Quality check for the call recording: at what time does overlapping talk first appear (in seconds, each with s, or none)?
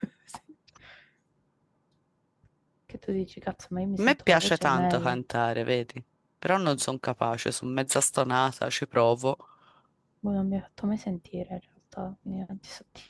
4.0 s